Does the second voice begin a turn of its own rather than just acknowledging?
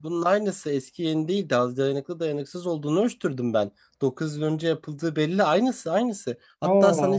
No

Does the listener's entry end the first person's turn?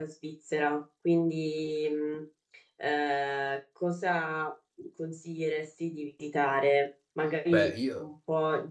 No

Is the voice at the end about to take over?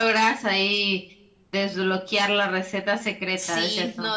Yes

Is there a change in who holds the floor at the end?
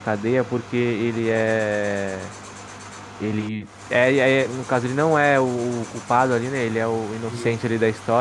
No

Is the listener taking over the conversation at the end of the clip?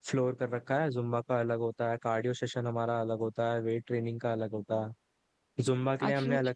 No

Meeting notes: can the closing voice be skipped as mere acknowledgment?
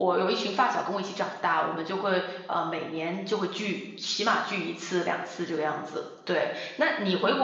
Yes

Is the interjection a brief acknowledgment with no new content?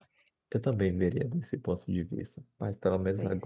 Yes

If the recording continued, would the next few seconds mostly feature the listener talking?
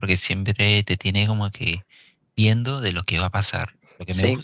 No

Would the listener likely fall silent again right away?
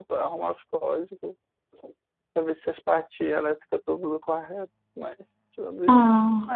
Yes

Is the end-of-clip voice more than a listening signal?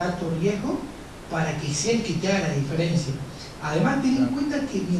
No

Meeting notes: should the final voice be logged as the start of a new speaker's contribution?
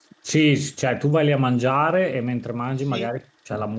No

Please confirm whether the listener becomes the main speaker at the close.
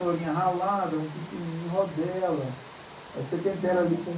No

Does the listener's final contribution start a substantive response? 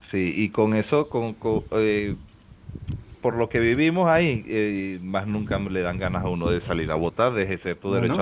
No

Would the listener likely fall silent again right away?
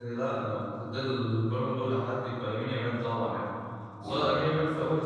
Yes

